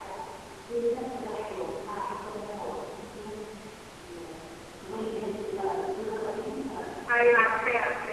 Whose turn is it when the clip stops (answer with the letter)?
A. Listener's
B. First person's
A